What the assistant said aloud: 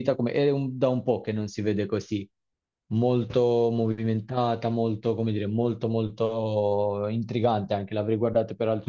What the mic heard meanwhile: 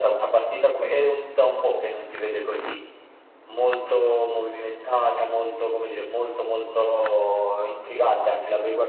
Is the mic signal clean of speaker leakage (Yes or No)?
No